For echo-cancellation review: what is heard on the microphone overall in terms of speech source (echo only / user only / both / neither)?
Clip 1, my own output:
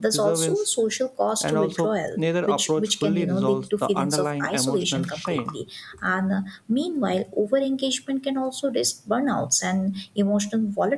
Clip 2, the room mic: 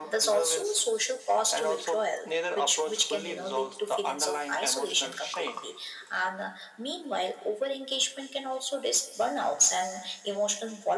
echo only